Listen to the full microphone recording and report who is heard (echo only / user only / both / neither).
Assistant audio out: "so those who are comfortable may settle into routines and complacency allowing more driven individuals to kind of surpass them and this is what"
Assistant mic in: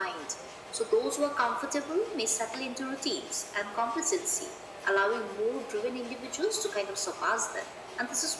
echo only